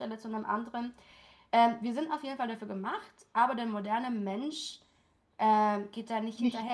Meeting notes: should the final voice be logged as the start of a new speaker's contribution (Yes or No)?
No